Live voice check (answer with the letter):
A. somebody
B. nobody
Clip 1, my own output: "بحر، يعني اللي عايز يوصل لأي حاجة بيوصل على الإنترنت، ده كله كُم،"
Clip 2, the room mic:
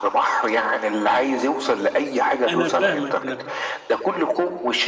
A